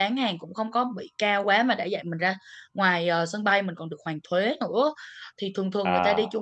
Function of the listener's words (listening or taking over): listening